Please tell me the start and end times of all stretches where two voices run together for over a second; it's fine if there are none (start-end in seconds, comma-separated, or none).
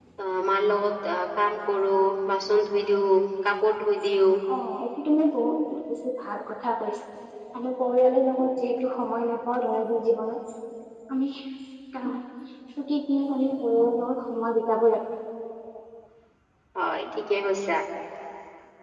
none